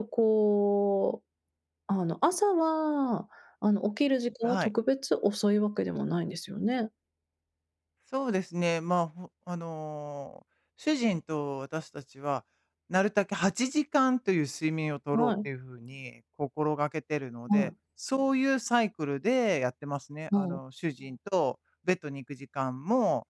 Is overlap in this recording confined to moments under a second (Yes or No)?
Yes